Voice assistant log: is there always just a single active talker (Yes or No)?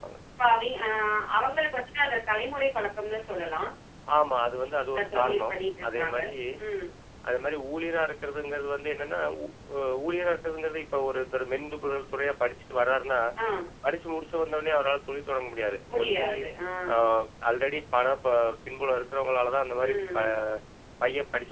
No